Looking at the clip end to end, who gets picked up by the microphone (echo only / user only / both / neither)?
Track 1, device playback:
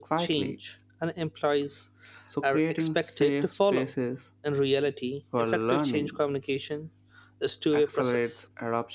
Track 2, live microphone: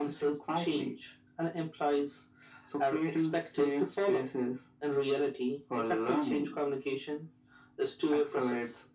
echo only